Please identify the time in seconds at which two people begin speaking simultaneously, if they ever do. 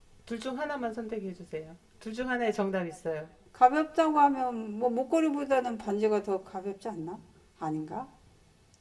none

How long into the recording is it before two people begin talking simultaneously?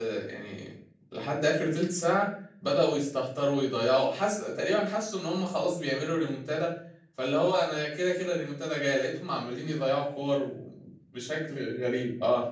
none

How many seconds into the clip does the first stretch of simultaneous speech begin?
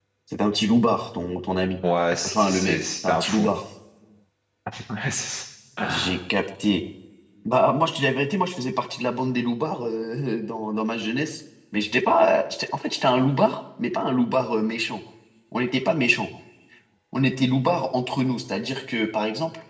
2.2 s

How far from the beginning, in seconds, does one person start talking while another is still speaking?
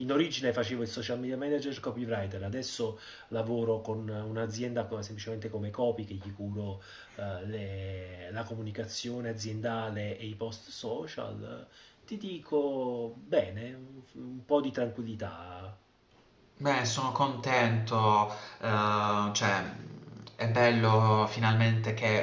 none

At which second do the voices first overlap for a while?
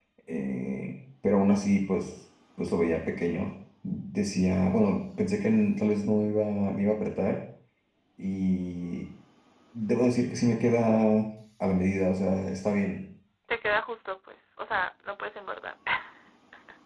none

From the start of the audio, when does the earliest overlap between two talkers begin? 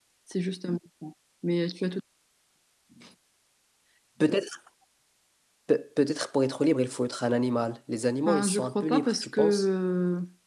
8.3 s

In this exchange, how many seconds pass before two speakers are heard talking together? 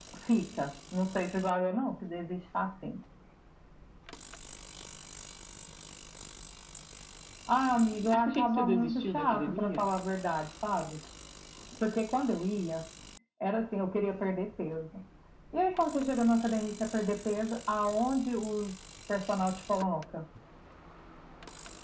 8.0 s

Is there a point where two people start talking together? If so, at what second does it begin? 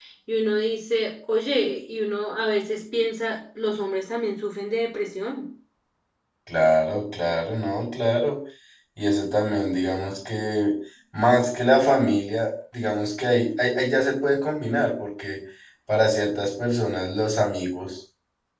none

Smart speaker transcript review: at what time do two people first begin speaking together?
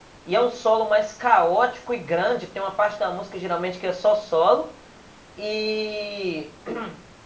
none

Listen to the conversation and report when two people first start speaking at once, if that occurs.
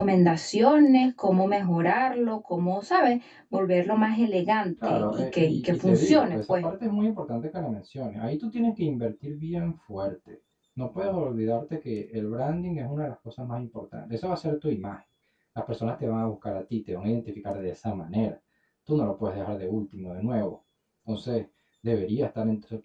4.8 s

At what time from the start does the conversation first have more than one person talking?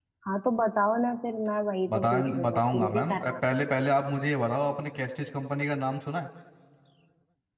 1.9 s

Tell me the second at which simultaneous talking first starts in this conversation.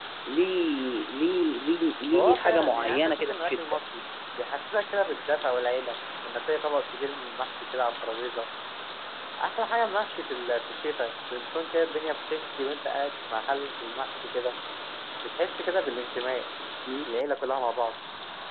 2.1 s

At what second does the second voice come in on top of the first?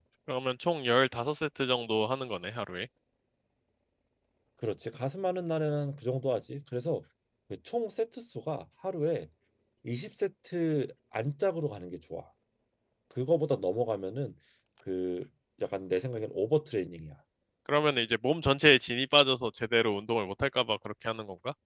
none

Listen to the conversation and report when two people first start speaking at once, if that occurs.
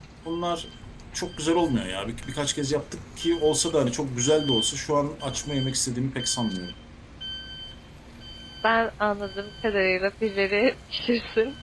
none

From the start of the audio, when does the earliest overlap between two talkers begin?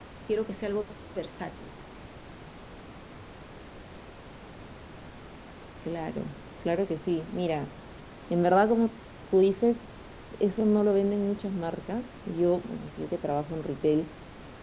none

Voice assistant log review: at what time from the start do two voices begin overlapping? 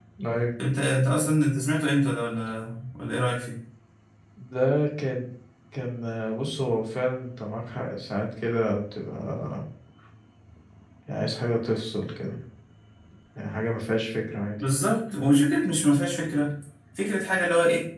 none

